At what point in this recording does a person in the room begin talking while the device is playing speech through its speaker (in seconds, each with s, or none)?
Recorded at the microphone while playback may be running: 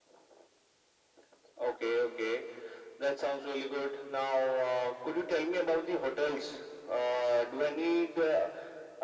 none